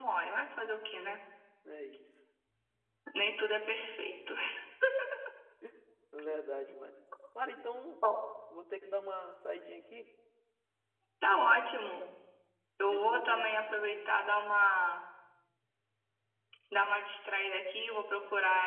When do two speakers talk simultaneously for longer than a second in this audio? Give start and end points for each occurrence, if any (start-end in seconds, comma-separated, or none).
12.8-14.1